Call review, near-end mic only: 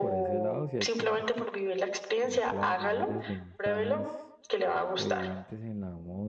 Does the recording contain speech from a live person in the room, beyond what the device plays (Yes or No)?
Yes